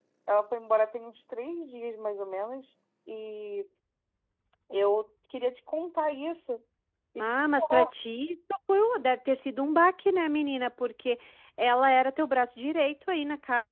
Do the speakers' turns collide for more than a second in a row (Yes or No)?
No